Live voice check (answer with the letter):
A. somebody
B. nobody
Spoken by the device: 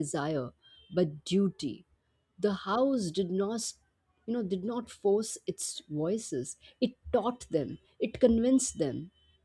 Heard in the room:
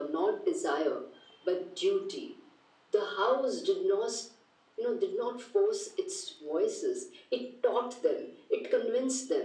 B